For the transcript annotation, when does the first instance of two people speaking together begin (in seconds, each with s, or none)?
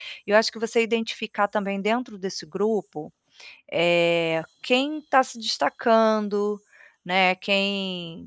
none